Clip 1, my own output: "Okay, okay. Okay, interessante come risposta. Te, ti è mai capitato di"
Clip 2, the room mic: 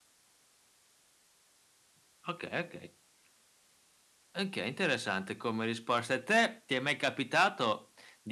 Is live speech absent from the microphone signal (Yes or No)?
Yes